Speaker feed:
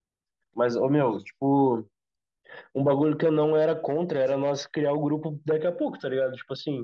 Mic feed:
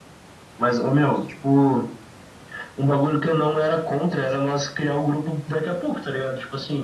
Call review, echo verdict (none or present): present